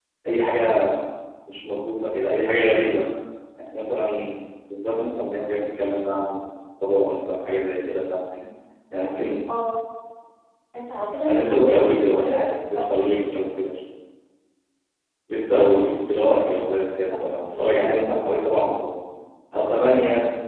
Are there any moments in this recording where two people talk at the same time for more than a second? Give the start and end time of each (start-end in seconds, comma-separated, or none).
11.3-12.9